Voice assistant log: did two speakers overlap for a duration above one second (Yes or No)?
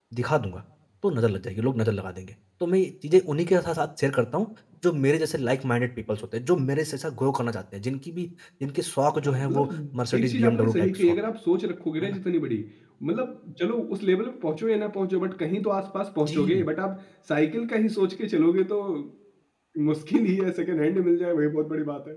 Yes